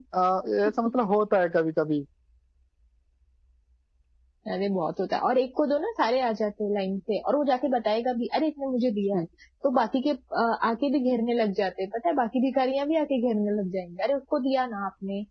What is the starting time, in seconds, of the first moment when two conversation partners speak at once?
none

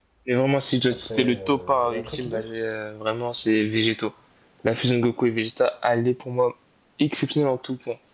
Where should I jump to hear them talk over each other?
0.9 s

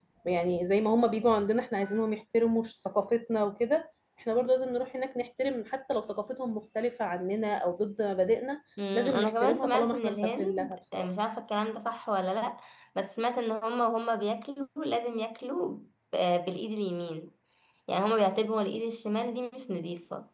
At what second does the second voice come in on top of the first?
8.8 s

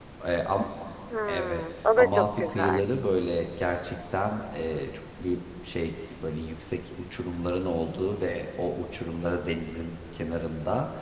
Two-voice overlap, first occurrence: 1.3 s

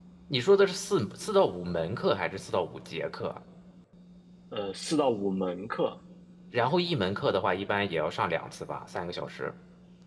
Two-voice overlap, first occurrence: none

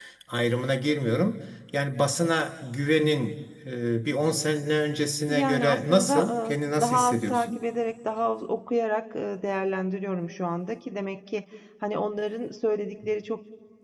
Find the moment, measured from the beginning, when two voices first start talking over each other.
5.3 s

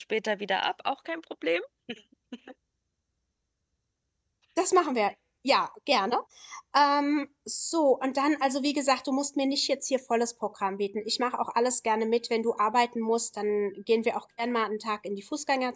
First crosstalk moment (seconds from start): none

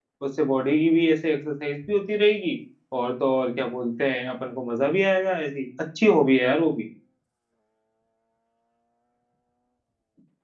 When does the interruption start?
none

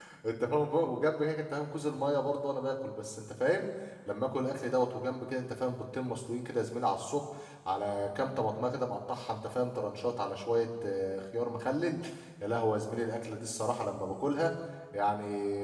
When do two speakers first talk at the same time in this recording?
none

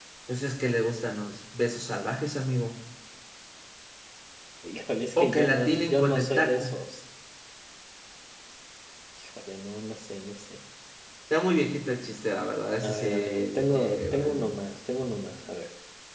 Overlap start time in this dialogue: 5.2 s

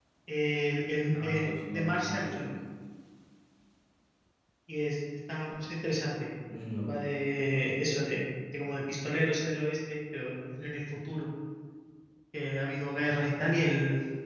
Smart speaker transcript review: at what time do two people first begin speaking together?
1.1 s

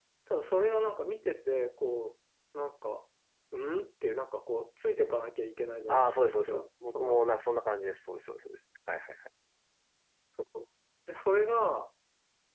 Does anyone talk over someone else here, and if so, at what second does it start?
5.9 s

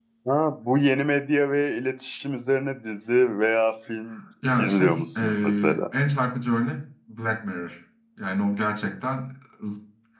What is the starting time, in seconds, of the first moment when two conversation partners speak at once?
4.4 s

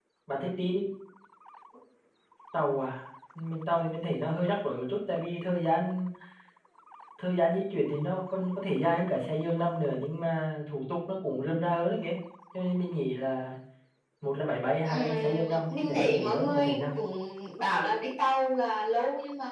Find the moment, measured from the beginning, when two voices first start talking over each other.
14.8 s

